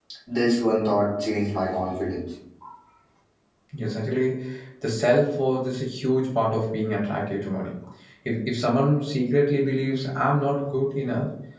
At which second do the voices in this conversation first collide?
none

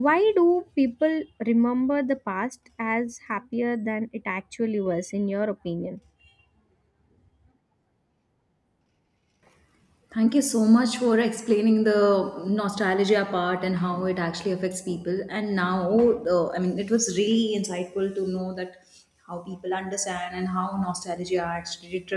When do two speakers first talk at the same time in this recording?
none

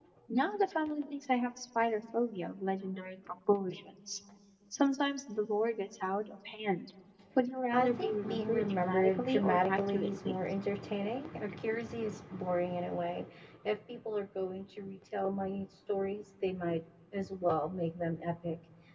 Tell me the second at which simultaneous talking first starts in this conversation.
7.7 s

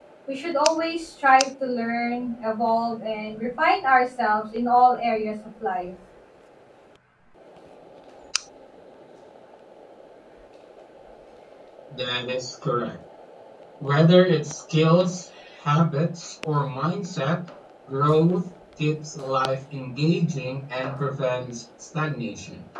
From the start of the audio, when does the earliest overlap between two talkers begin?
none

